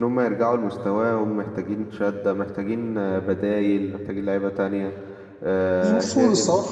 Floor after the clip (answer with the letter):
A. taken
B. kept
A